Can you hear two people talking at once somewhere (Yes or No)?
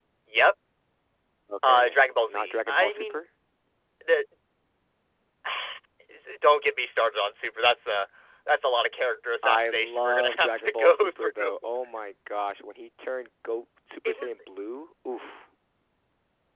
Yes